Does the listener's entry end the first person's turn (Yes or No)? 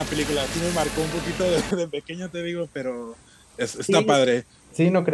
Yes